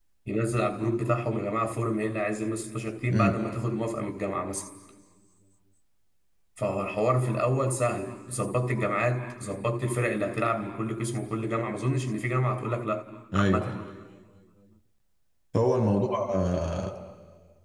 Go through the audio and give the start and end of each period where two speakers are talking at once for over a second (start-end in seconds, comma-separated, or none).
none